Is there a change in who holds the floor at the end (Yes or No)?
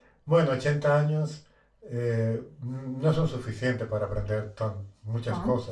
No